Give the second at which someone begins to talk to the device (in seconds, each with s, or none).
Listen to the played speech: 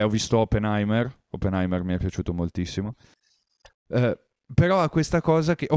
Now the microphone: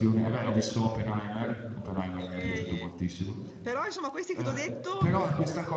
2.1 s